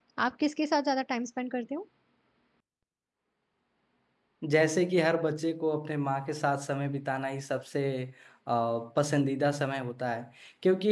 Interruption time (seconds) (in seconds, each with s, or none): none